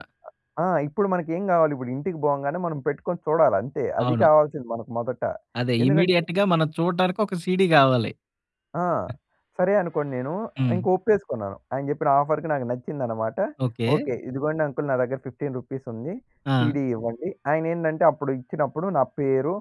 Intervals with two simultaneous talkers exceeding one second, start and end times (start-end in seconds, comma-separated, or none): none